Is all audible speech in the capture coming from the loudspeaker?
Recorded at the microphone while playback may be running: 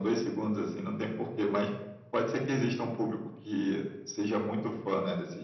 Yes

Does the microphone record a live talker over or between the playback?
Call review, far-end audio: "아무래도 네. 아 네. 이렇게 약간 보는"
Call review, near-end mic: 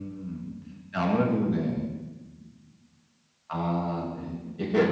No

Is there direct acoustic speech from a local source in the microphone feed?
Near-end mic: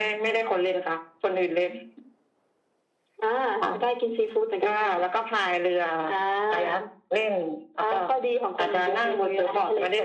No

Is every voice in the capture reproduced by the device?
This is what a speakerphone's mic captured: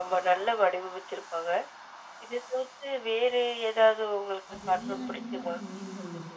No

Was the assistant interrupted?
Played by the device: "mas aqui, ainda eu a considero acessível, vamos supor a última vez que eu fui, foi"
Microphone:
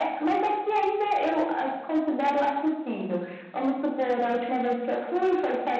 No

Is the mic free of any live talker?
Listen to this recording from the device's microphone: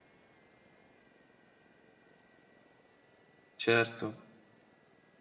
No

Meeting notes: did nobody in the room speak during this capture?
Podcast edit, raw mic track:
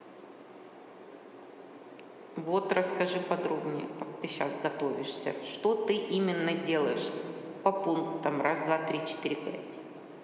No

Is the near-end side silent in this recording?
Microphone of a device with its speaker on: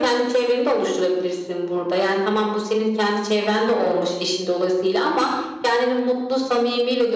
Yes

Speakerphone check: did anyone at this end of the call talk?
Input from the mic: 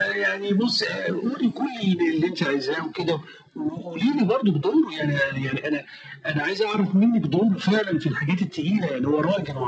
No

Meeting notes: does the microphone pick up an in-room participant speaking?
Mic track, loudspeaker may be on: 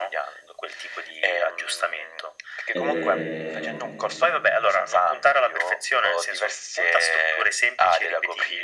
Yes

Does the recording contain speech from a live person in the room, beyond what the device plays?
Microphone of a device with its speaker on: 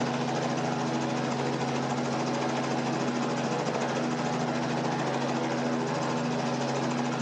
No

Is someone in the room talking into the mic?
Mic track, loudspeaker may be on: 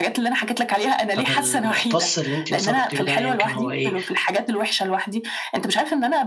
Yes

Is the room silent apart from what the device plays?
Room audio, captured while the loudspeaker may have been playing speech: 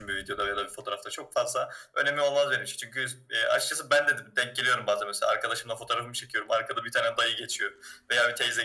Yes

